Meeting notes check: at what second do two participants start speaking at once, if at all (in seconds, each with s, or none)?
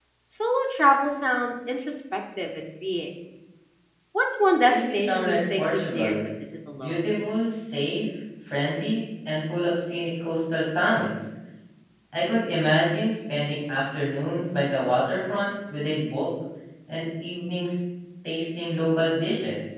4.7 s